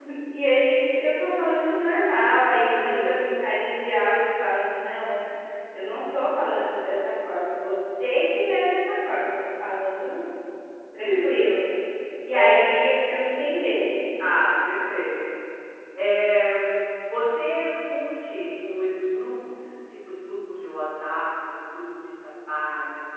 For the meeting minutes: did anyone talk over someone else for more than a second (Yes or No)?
No